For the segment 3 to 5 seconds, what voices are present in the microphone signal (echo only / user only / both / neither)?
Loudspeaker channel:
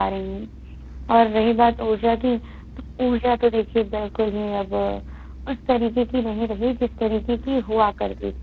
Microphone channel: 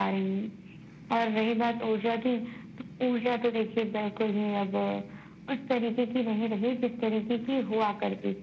echo only